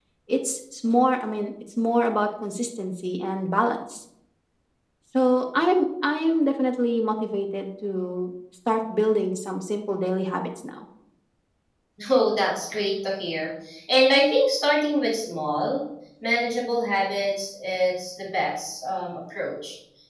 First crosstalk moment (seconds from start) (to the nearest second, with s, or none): none